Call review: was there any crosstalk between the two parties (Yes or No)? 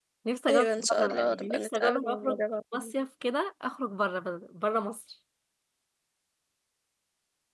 Yes